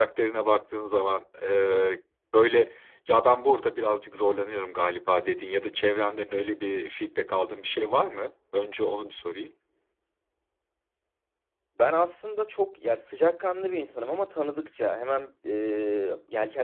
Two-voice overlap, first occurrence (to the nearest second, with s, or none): none